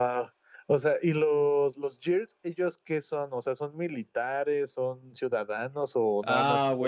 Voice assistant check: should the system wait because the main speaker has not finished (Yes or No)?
No